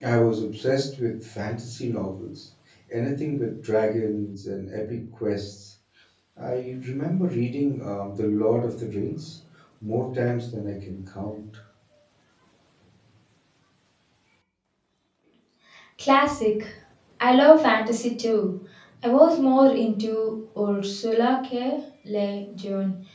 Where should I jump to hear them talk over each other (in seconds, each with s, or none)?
none